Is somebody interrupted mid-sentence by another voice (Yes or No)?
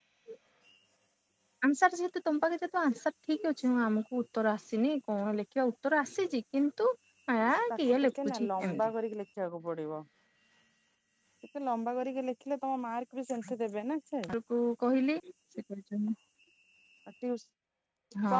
Yes